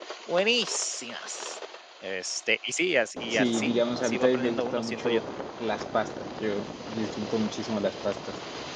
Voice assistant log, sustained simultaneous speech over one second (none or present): present